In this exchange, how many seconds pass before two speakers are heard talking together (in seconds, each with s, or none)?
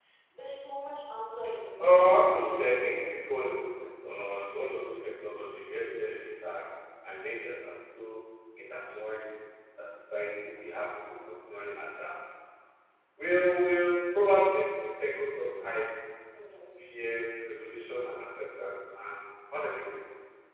1.8 s